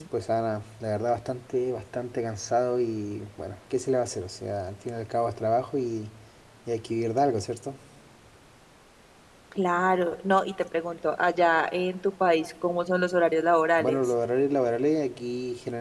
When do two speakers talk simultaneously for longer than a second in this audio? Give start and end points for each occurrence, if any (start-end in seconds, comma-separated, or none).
none